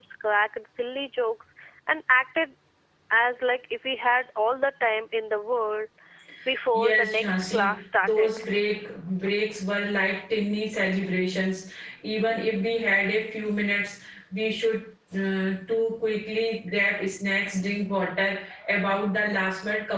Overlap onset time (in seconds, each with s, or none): 6.7 s